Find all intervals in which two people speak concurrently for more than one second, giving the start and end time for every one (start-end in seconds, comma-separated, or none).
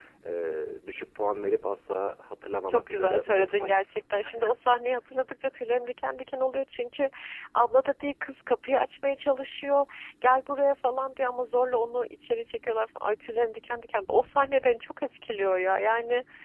2.7-4.0